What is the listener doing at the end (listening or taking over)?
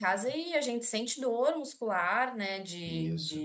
listening